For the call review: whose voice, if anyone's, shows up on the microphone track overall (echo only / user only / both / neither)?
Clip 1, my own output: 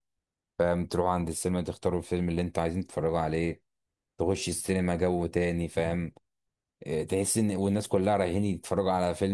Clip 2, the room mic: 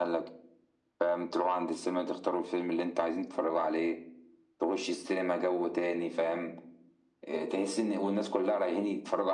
echo only